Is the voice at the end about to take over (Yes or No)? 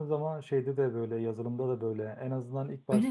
No